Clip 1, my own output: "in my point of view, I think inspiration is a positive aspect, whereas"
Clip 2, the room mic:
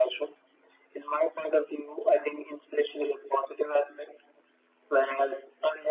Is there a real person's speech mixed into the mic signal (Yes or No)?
No